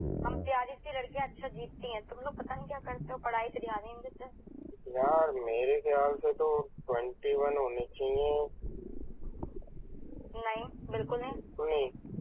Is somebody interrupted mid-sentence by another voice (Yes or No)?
No